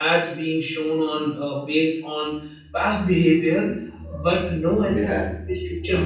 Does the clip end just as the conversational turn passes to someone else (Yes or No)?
No